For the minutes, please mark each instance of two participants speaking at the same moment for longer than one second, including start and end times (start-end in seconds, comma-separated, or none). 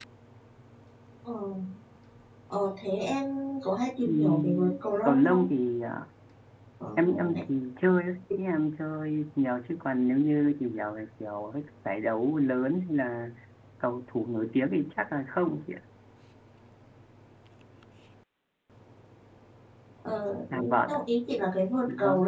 4.0-5.5